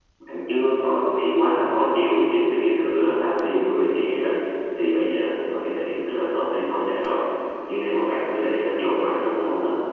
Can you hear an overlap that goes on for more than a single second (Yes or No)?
No